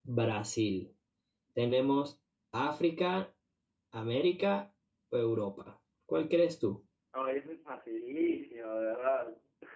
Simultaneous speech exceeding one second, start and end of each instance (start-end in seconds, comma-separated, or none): none